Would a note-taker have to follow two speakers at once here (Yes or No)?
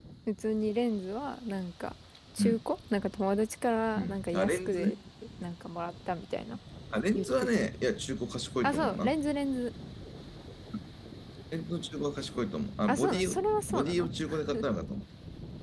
Yes